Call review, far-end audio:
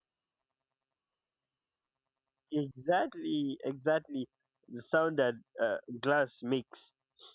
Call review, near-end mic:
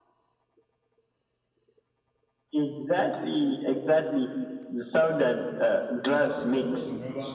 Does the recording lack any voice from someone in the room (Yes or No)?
No